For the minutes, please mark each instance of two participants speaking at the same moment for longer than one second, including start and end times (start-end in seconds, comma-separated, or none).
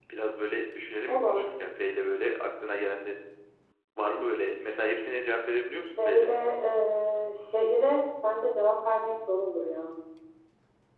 none